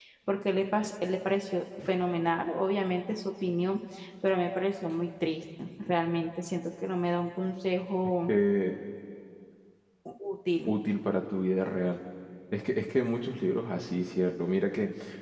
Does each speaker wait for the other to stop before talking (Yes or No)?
Yes